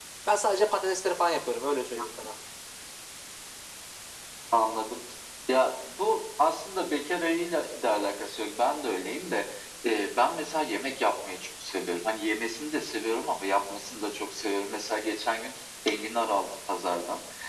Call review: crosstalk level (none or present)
none